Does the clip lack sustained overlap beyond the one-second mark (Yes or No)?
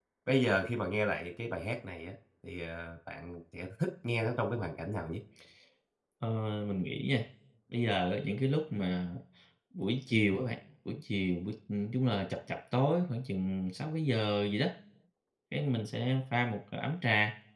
Yes